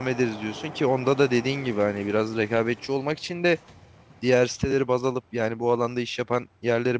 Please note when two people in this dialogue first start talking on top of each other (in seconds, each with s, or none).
none